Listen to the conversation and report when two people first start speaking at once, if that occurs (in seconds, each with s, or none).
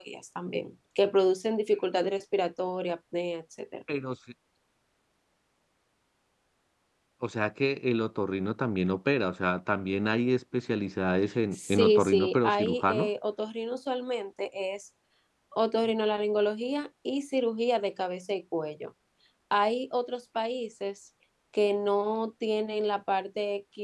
11.5 s